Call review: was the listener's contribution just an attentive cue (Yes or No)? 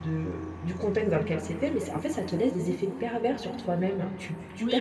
No